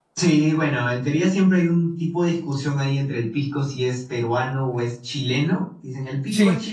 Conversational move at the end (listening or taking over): listening